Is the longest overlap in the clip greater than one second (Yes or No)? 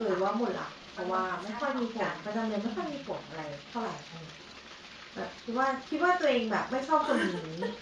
Yes